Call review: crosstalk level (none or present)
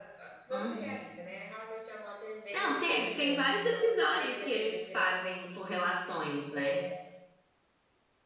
present